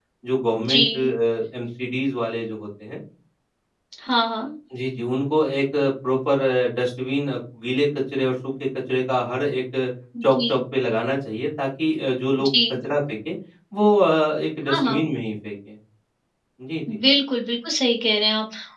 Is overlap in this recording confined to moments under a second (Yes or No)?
Yes